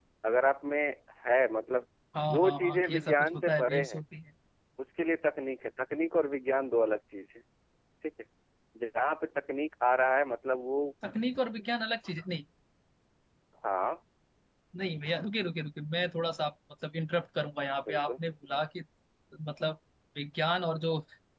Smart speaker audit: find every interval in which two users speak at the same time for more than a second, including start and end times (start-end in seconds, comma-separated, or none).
2.3-4.0